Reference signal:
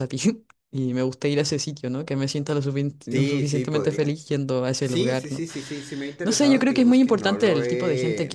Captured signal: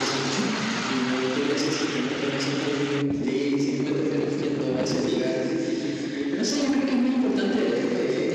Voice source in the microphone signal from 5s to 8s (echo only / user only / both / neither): echo only